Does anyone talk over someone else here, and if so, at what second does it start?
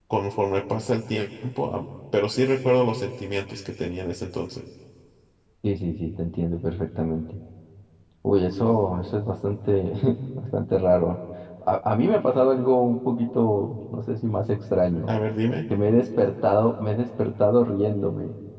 none

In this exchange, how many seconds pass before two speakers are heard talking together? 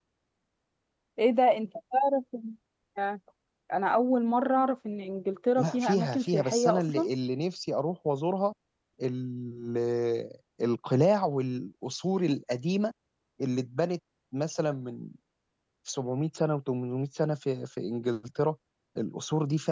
5.6 s

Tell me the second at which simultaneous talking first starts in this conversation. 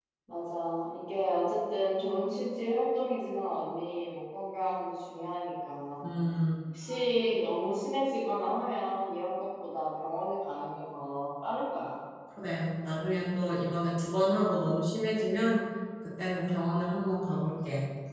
none

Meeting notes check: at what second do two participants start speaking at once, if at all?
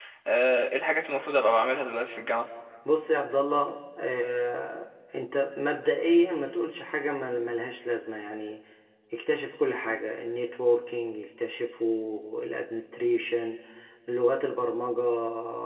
none

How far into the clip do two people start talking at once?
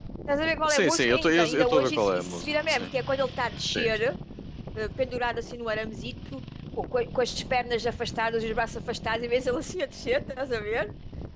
0.7 s

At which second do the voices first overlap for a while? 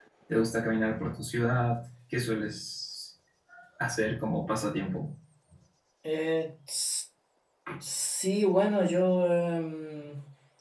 none

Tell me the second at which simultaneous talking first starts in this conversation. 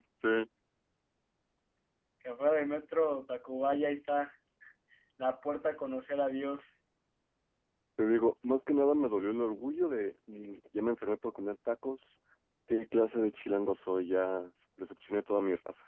none

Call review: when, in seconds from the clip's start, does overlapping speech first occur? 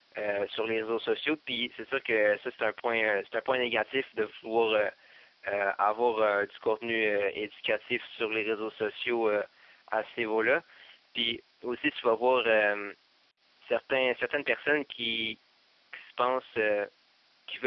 none

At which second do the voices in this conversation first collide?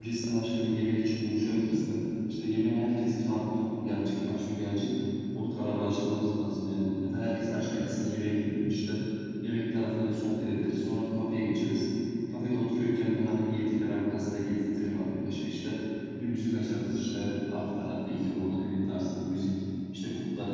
none

